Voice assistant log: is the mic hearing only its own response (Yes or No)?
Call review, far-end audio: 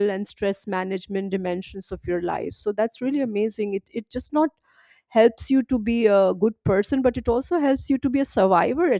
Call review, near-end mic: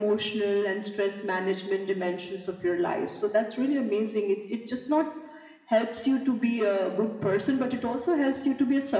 Yes